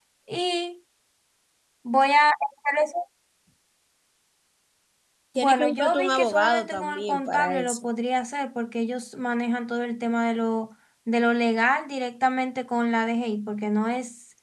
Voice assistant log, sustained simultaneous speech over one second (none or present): present